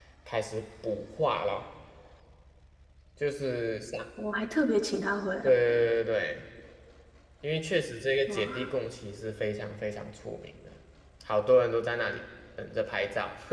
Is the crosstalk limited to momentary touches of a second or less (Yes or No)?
Yes